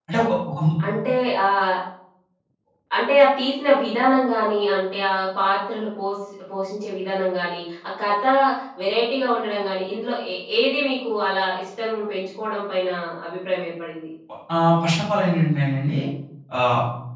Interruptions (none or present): none